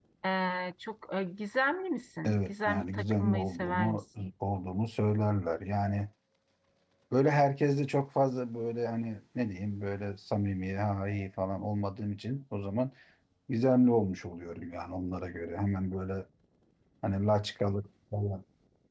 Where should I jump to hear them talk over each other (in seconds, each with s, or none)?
2.2 s